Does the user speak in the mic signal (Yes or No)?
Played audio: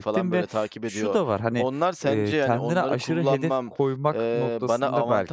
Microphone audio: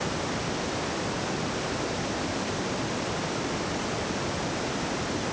No